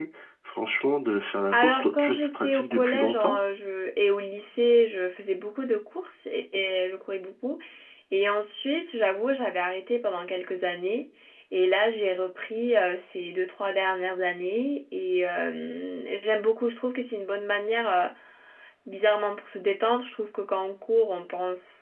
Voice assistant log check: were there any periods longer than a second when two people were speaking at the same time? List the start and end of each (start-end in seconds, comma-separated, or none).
1.5-3.4